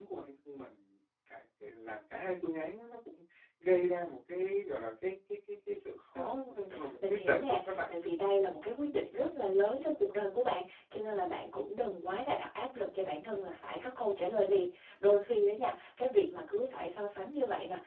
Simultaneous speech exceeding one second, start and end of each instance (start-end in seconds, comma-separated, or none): 6.1-7.8